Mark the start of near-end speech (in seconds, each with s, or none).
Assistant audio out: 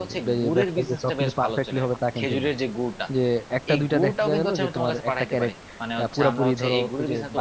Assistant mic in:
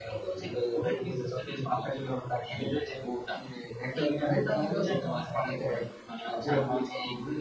none